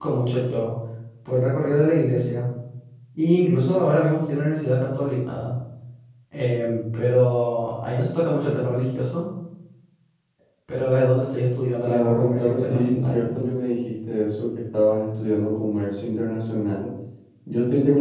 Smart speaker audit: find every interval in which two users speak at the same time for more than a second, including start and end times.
11.8-13.3

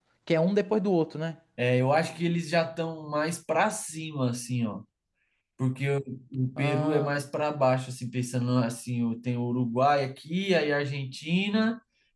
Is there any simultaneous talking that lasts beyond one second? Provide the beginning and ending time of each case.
none

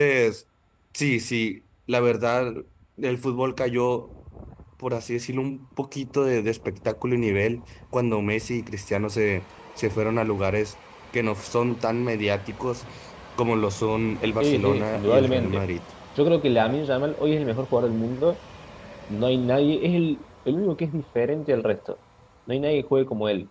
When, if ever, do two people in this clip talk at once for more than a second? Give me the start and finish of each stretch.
14.4-15.6

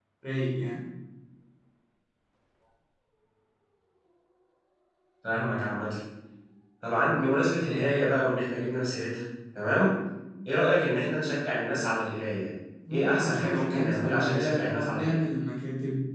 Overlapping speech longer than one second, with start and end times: 12.9-15.2

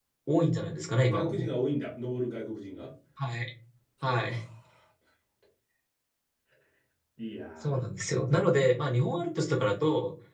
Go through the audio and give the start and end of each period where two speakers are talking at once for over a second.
none

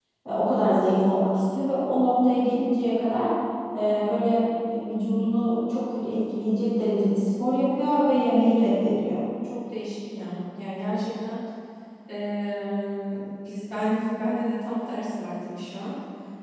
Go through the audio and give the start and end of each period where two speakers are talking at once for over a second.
none

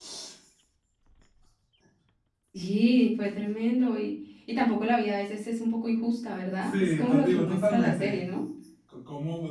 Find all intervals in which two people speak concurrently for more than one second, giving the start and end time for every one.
6.6-8.2

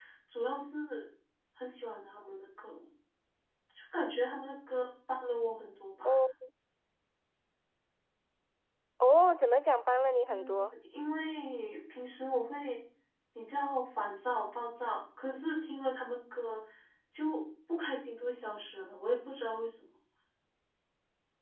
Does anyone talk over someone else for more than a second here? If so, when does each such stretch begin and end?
none

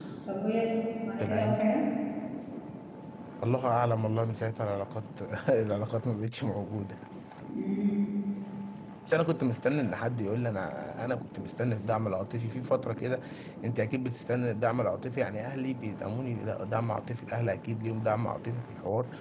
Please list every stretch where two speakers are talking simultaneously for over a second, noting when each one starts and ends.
none

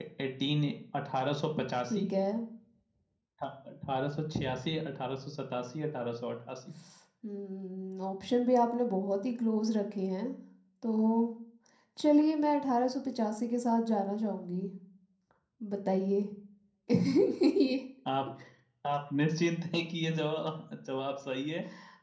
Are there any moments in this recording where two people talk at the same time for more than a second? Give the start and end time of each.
none

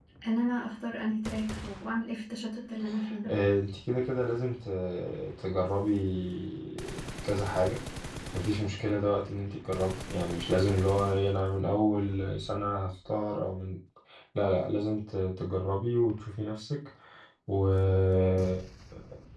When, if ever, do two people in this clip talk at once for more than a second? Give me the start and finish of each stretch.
none

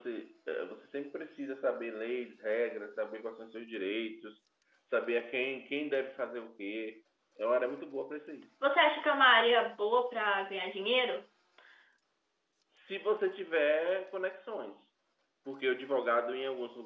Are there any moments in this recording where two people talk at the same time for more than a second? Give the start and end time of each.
none

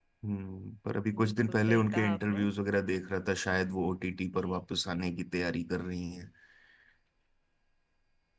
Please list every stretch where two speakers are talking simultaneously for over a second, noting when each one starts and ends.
1.2-2.5

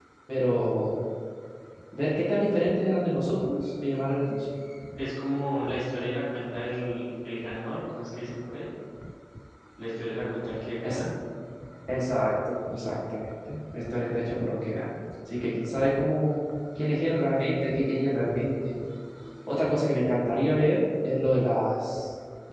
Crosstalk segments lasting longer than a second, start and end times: none

